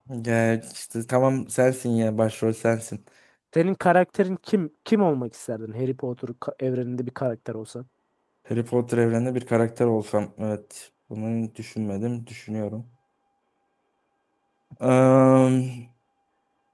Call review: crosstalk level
none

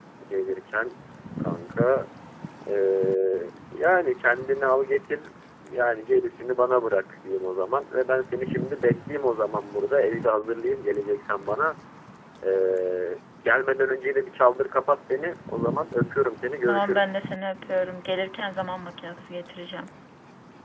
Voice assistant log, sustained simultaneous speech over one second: none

